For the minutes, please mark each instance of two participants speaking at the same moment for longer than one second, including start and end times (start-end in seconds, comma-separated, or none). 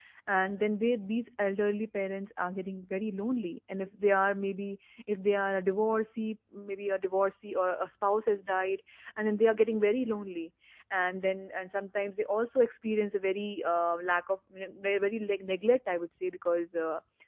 none